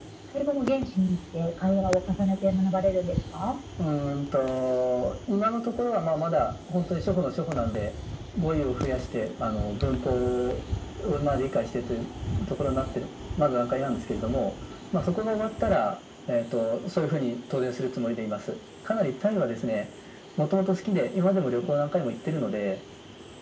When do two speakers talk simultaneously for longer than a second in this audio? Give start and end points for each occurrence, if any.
none

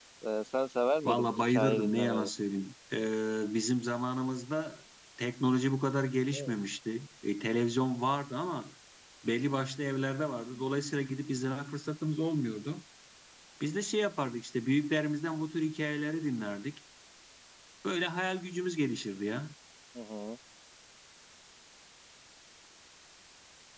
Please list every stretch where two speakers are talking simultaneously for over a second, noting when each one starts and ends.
1.1-2.3

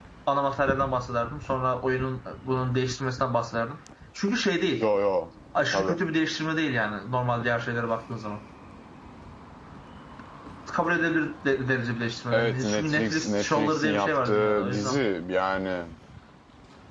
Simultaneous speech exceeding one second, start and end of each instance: 12.3-15.0

